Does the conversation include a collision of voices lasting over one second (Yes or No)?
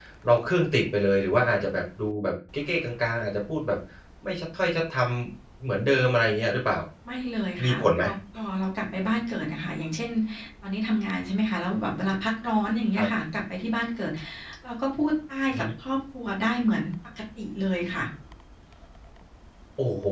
No